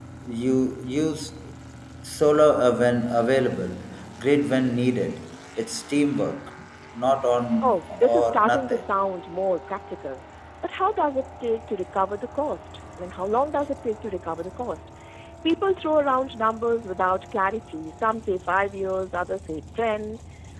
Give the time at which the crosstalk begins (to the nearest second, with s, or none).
8 s